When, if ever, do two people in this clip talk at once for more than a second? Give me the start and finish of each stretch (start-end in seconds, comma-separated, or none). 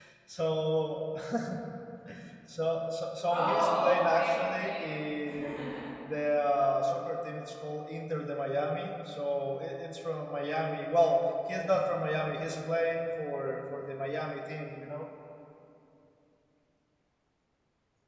3.3-4.9